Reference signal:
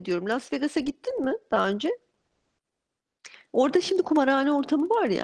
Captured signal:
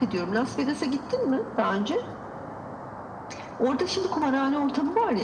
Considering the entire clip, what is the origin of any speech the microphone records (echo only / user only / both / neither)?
echo only